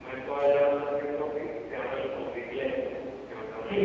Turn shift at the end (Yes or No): Yes